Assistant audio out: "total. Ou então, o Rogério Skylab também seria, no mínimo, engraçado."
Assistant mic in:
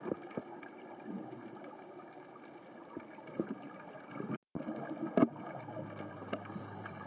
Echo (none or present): none